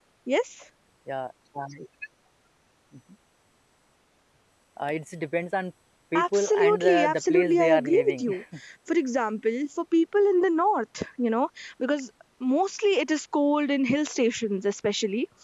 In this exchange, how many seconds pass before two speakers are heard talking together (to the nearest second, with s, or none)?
6 s